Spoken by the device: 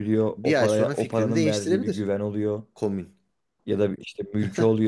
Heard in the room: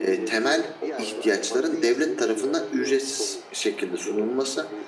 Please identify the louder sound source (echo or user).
user